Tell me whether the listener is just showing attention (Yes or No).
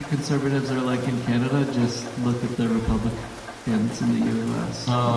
No